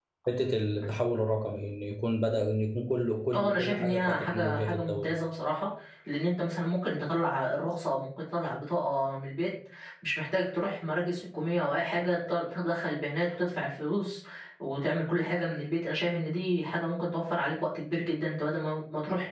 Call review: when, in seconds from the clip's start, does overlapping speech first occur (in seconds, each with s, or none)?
3.3 s